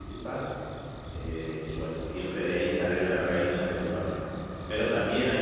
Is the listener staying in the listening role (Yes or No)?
Yes